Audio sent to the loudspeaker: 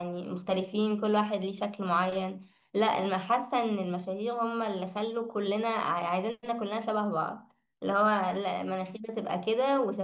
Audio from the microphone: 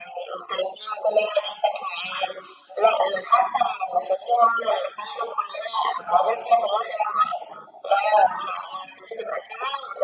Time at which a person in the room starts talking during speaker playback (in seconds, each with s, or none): none